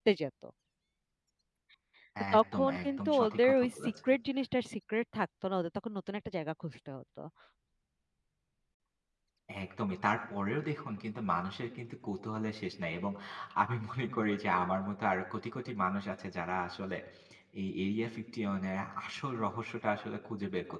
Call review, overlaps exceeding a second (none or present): present